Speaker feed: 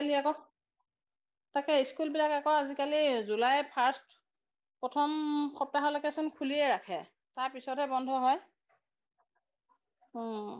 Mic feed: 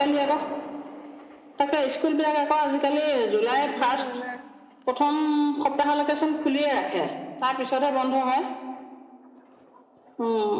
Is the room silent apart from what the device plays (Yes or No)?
No